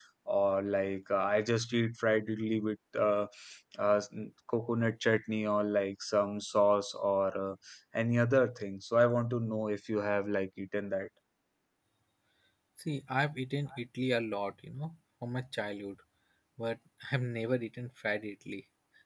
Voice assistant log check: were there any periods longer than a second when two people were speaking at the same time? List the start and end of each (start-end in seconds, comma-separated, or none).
none